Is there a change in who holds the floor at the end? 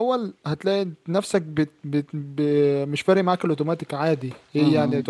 Yes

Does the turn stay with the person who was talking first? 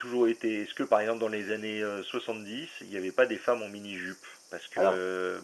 Yes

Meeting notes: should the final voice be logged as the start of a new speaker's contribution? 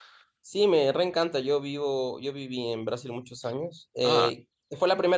No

